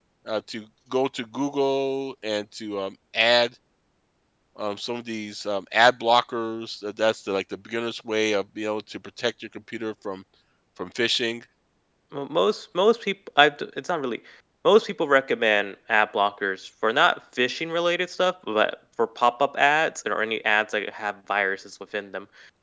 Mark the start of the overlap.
none

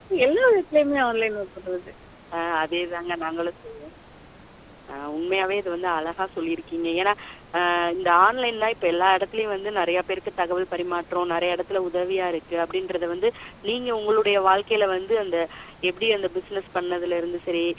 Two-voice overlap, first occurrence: none

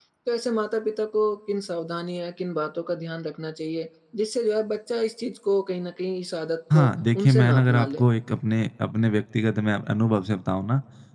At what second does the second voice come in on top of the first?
6.7 s

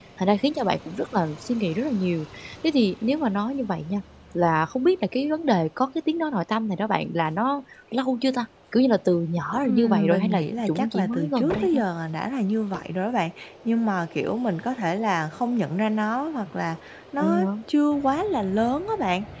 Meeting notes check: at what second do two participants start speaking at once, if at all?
9.6 s

